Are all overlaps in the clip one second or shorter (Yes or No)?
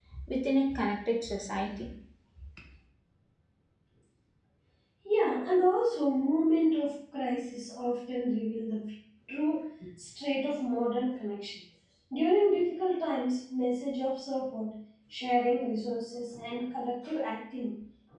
Yes